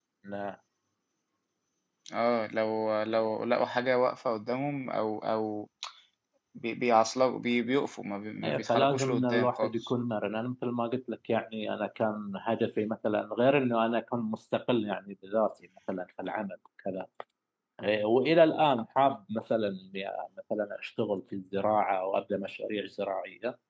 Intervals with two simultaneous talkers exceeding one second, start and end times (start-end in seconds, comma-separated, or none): 8.4-9.8